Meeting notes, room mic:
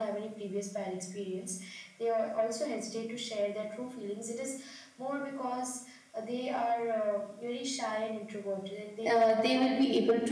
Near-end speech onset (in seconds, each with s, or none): 9.1 s